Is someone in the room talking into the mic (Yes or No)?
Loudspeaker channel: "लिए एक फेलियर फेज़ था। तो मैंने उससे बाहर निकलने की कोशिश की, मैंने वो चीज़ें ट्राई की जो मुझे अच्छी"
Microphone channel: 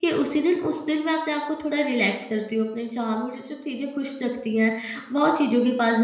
Yes